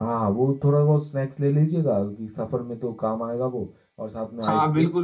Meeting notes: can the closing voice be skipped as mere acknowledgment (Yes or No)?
No